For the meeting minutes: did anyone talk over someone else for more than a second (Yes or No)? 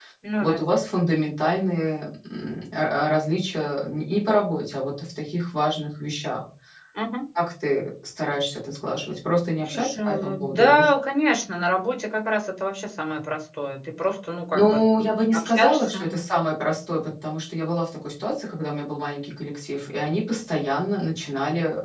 Yes